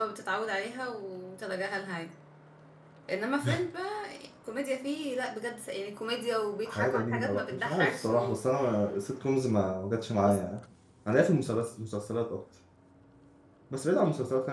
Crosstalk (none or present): present